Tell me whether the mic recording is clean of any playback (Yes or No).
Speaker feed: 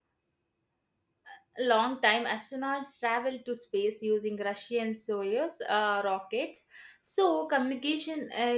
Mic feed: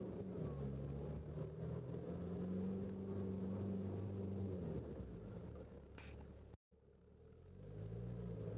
Yes